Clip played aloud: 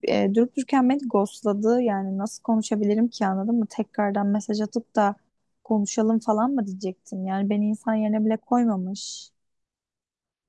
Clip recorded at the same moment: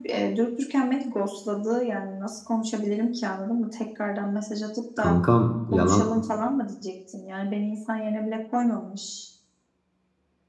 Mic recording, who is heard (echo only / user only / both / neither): both